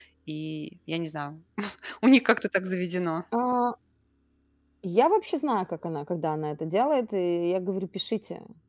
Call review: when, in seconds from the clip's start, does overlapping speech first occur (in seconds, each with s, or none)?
none